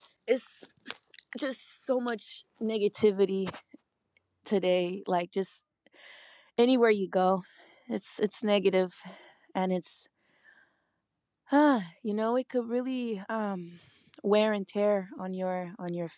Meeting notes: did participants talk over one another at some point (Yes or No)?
No